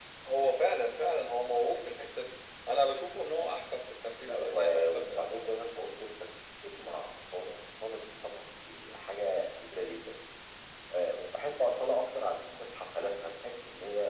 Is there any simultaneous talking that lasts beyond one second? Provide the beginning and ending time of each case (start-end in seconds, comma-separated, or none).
4.2-5.5